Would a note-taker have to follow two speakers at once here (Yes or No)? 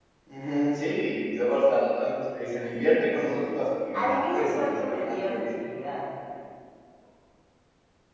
Yes